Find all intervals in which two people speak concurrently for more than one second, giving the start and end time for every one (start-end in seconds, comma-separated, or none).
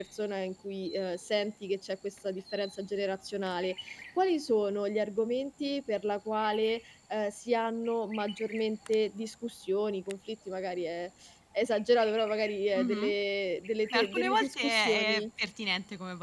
13.9-15.3